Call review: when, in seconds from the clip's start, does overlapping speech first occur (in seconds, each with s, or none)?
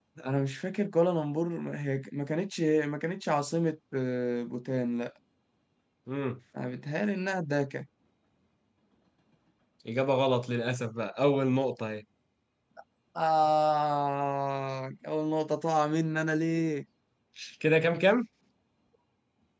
none